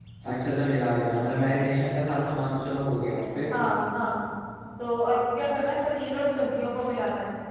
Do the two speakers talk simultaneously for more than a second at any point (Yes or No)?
No